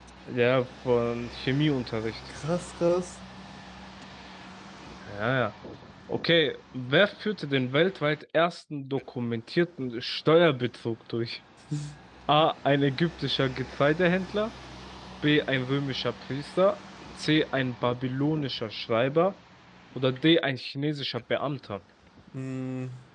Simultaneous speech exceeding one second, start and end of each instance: none

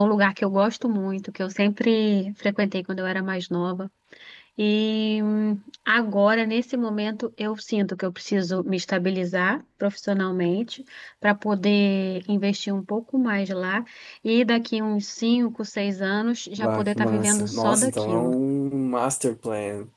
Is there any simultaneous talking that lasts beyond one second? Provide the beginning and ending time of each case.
16.6-18.3

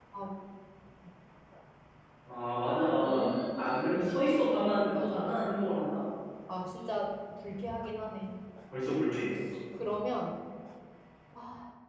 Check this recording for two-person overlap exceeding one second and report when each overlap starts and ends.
3.0-4.3

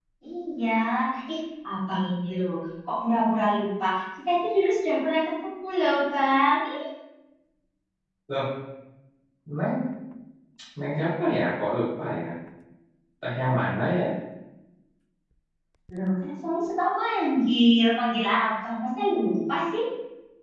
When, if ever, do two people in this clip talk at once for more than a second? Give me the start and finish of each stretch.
none

